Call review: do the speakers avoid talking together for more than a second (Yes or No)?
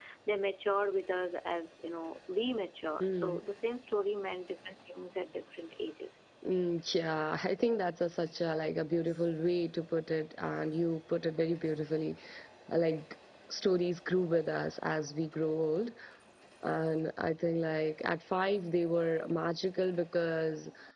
Yes